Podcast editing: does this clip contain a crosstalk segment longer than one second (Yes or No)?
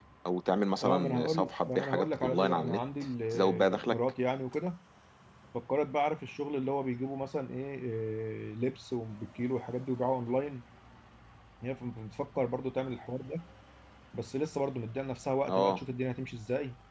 Yes